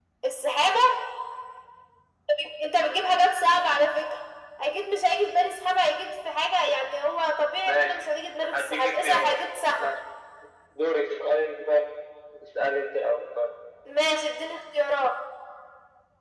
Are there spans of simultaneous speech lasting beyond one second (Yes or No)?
Yes